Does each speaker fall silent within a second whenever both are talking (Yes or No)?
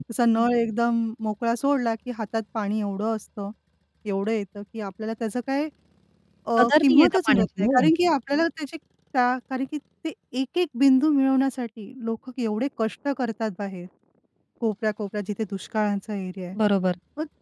No